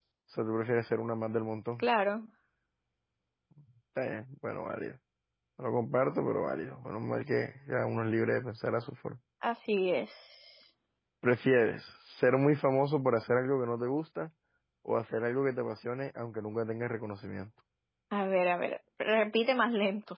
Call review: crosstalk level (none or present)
none